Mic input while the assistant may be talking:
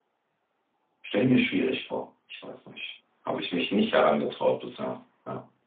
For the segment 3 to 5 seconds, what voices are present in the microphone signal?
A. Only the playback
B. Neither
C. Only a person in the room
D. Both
C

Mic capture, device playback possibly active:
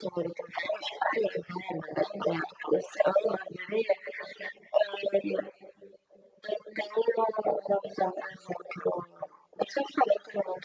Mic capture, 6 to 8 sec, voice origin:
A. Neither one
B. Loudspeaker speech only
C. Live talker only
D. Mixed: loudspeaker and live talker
B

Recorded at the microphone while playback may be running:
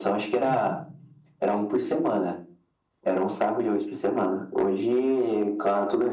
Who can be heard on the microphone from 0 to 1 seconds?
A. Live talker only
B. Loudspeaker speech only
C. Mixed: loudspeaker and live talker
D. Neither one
C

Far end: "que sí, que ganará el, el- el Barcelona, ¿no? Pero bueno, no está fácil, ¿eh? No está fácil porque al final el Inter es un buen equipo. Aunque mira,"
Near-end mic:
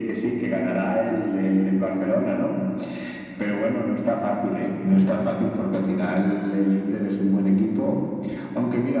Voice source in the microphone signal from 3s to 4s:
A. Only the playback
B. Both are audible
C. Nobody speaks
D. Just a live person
A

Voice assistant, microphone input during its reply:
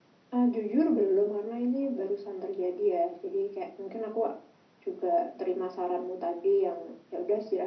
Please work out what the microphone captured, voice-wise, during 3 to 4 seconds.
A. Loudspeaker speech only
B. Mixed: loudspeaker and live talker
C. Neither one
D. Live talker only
A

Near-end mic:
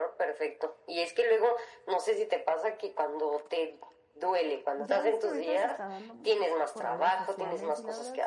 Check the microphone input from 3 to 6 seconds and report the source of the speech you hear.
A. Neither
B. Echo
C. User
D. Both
D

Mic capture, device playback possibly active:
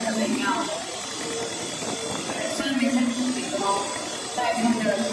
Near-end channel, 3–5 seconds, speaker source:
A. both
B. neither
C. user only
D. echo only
D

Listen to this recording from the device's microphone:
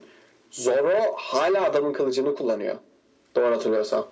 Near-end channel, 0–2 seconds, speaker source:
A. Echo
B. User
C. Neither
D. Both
A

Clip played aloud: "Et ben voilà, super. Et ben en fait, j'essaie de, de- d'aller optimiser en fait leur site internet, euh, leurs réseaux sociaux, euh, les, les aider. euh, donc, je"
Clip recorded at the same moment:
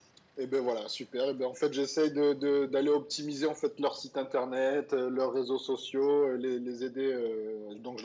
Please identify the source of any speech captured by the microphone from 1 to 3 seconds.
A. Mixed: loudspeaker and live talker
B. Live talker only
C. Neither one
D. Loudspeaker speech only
D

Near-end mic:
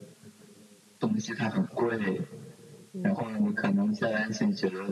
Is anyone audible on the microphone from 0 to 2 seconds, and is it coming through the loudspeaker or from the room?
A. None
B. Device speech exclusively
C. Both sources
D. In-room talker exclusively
B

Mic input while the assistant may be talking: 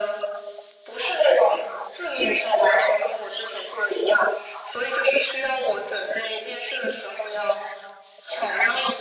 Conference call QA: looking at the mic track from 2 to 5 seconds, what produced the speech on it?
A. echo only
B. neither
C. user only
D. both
A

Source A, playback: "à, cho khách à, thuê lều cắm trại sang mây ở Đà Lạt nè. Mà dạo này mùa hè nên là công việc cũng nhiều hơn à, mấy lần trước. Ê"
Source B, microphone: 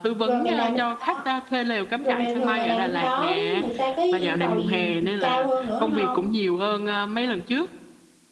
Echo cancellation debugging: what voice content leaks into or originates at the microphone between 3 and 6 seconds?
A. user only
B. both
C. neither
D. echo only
B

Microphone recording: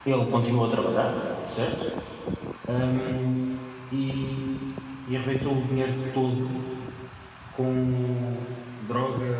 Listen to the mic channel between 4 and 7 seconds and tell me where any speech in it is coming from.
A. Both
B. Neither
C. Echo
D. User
D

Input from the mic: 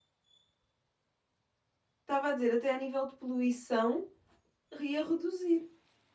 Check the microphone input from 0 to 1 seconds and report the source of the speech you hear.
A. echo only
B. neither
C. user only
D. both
B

